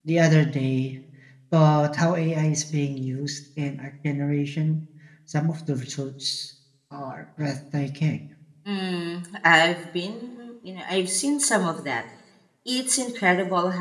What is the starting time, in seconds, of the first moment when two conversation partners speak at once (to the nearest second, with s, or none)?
none